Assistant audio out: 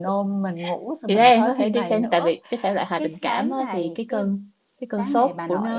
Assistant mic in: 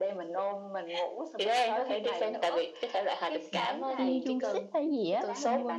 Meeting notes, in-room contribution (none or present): present